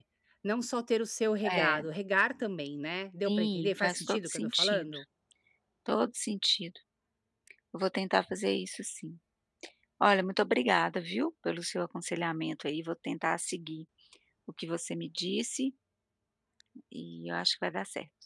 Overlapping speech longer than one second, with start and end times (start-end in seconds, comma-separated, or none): 3.2-5.0